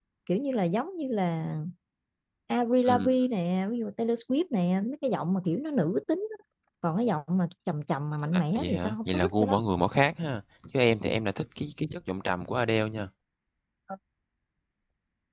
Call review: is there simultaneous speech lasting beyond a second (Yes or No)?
Yes